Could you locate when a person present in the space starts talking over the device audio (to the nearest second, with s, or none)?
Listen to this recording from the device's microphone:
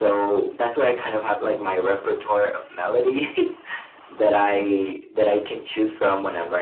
none